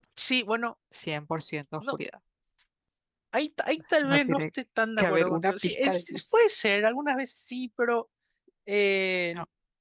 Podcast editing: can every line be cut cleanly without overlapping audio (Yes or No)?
No